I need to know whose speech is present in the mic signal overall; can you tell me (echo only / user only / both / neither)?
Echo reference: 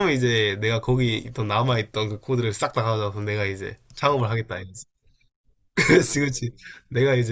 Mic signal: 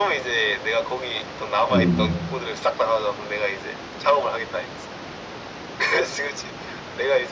both